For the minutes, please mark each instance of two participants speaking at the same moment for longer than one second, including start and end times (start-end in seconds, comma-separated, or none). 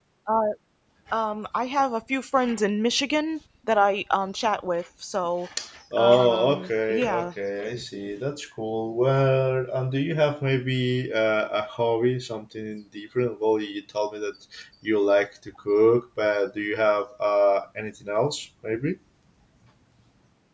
6.0-7.3